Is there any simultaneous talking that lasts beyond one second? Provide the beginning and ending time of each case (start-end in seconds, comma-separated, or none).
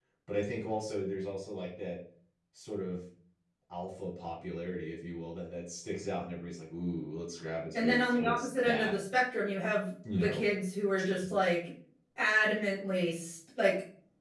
7.7-8.9